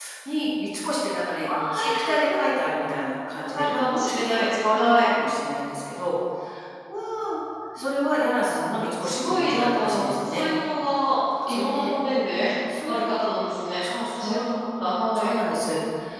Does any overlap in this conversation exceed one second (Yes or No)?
Yes